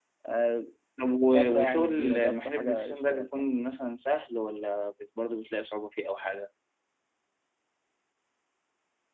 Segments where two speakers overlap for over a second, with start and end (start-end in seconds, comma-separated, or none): 1.3-3.5